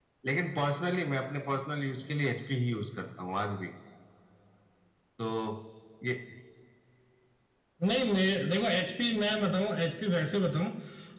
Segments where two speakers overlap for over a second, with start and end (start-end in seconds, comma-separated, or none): none